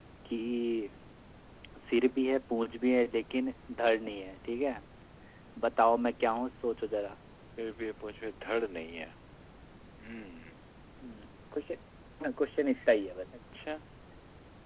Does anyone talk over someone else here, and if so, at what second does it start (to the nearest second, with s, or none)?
none